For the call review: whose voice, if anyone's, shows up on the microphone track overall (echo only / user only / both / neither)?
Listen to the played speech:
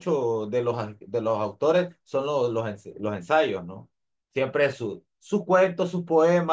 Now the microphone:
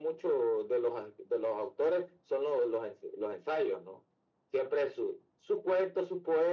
echo only